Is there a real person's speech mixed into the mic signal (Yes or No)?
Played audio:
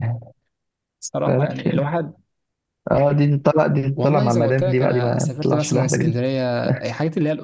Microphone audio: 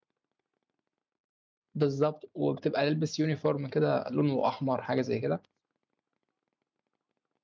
Yes